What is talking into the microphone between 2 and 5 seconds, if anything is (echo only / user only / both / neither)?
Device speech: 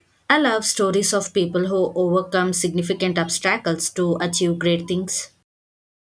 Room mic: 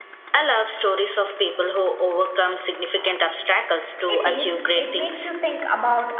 both